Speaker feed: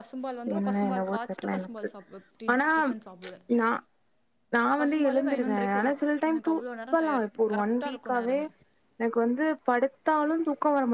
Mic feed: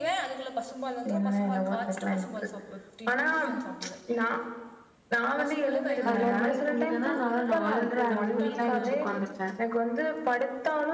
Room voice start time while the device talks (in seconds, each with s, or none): 6.1 s